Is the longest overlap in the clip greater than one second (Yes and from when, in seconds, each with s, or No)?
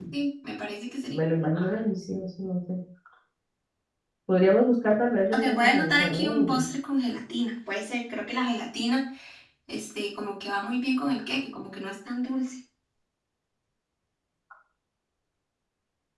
Yes, from 5.3 s